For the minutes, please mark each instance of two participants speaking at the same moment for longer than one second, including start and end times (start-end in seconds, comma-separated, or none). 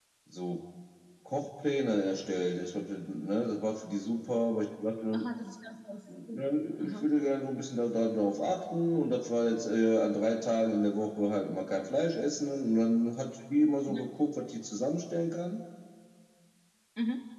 none